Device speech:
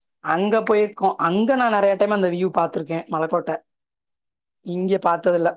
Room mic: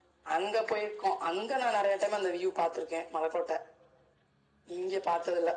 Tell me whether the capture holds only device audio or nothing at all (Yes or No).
Yes